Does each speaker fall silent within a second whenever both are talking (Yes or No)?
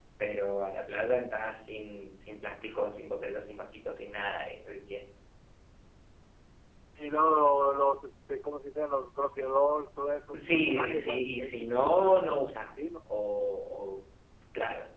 No